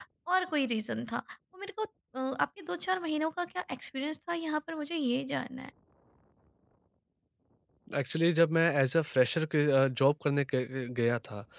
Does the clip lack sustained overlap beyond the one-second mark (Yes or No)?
Yes